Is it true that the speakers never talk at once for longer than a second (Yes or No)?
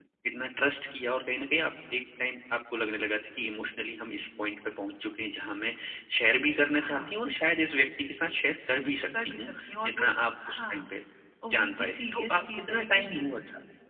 No